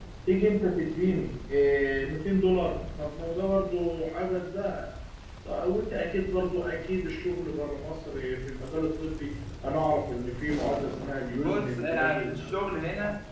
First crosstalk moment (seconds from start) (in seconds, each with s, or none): 11.4 s